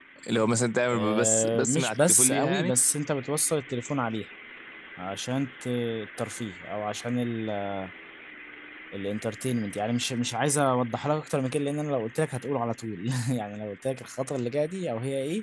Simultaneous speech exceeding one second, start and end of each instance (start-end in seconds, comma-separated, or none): 0.9-2.7